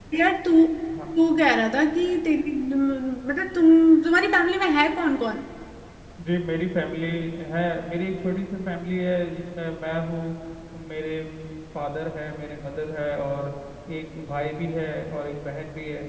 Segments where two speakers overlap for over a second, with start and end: none

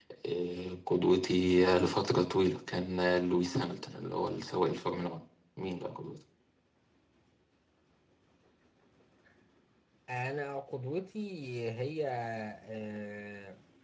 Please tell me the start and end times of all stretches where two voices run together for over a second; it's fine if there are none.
none

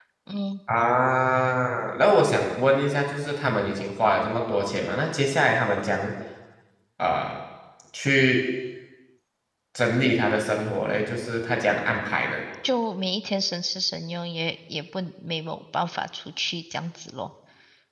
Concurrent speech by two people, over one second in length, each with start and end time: none

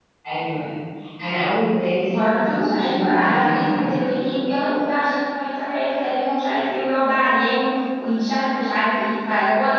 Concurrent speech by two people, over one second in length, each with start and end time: 2.1-3.9

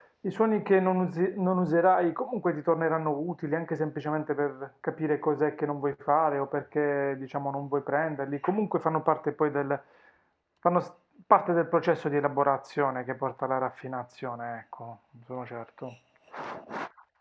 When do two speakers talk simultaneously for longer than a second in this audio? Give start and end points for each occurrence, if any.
none

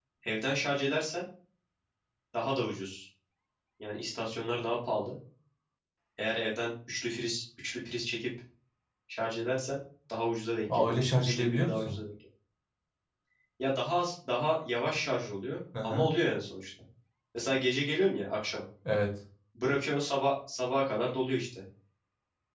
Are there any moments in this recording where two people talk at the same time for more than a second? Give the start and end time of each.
10.7-11.9

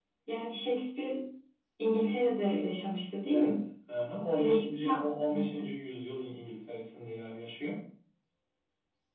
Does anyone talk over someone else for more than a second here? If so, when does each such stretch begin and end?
4.4-5.7

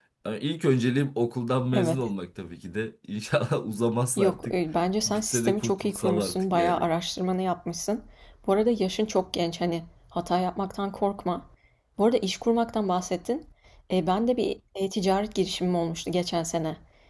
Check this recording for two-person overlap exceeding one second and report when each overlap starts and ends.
5.0-6.9

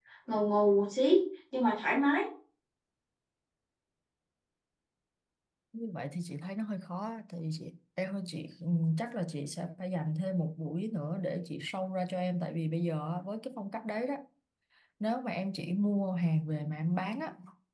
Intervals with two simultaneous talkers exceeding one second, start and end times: none

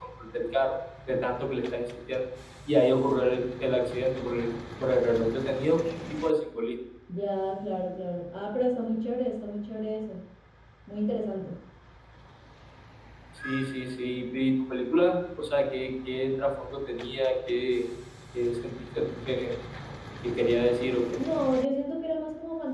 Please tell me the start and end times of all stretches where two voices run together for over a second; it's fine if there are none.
none

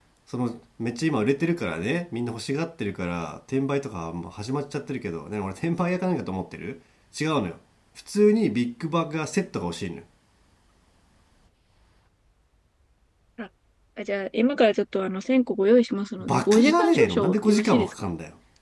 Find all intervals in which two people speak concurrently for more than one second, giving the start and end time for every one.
16.2-17.9

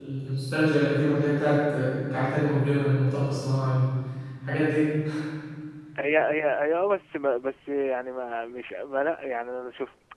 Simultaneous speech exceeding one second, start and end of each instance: none

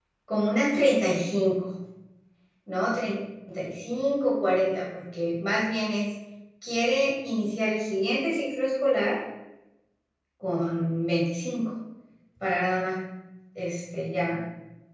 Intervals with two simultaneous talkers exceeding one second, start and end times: none

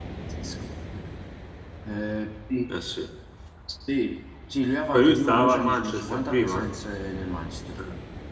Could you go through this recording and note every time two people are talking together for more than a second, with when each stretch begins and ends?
4.9-6.7

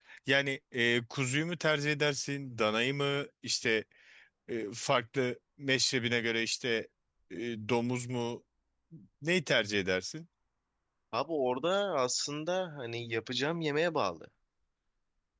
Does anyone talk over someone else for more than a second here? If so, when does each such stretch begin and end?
none

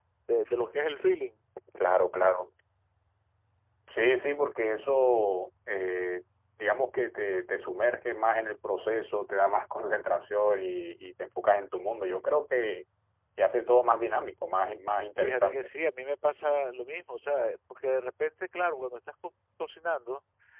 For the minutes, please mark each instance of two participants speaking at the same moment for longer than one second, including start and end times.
none

